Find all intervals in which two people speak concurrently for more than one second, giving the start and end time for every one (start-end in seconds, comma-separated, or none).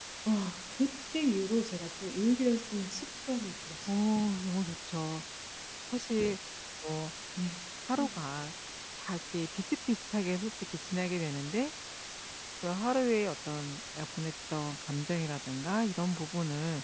none